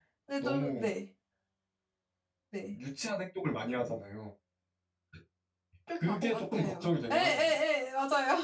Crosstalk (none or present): present